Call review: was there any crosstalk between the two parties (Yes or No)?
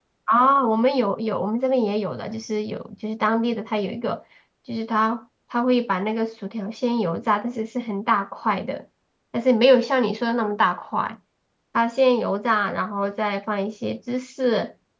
No